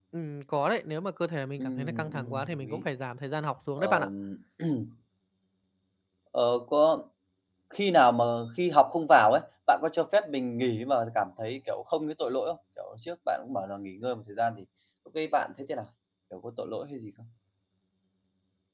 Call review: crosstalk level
present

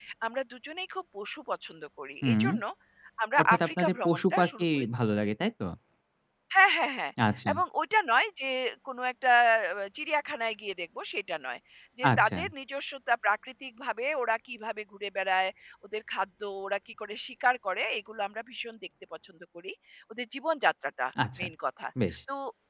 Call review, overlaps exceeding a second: present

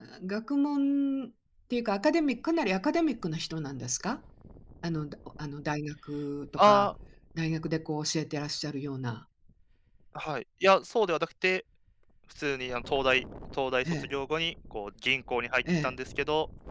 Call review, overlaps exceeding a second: none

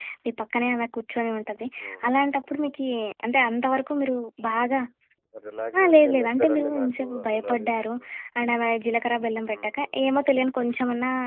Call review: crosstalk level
present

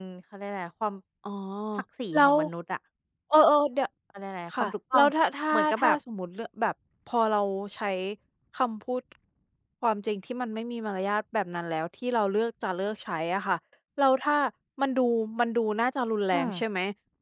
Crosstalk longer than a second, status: none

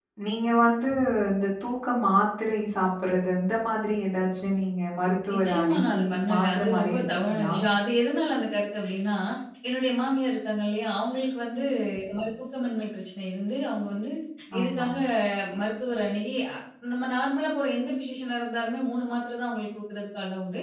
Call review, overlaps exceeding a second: present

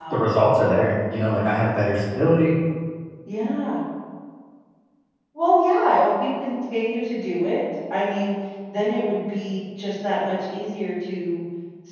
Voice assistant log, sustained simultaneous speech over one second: none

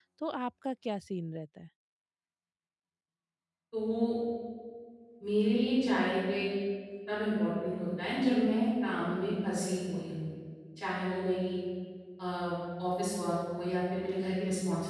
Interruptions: none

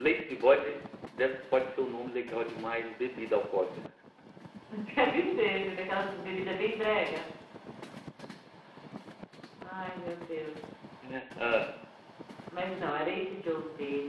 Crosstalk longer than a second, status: none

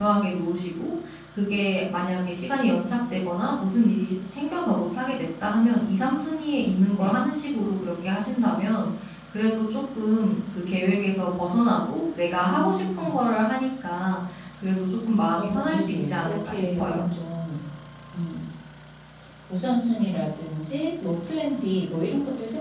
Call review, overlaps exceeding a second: present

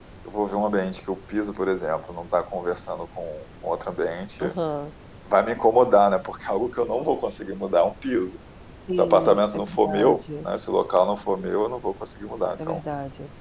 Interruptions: present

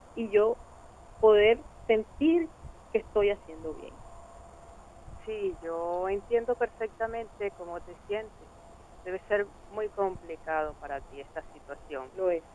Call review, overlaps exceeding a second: none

